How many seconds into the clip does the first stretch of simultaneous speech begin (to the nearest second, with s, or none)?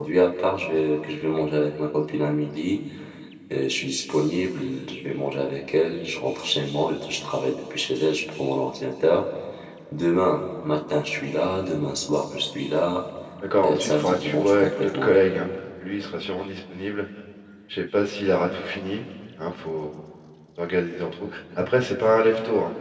14 s